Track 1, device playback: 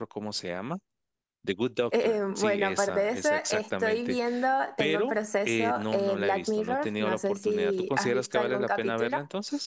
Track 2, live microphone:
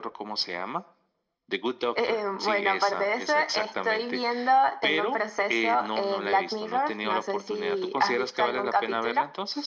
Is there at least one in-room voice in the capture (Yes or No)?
No